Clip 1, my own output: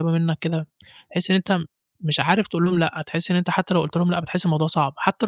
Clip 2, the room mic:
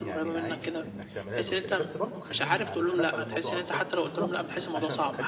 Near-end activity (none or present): present